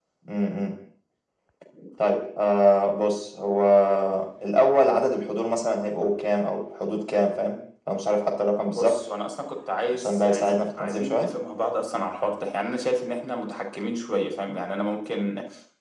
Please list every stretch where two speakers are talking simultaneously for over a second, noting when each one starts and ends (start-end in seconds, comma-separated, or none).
9.9-11.3